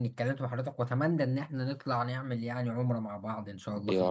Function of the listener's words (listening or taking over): taking over